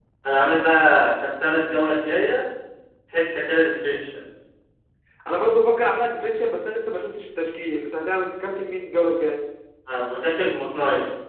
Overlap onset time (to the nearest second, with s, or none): none